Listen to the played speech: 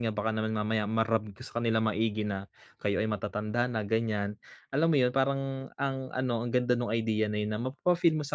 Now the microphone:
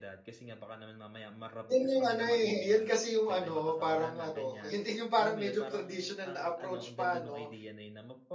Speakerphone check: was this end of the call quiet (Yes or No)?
No